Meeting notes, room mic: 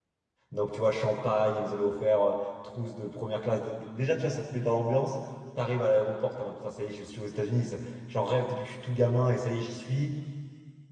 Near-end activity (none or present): present